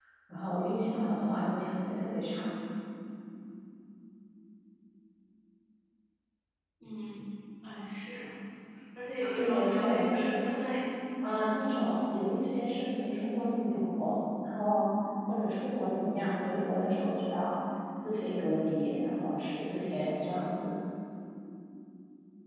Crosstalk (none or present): present